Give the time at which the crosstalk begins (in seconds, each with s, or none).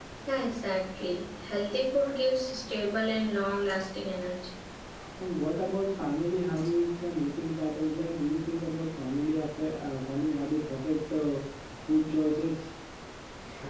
none